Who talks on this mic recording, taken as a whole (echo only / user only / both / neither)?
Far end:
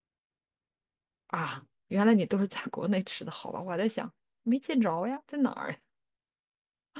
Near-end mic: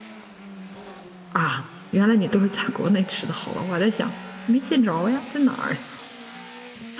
echo only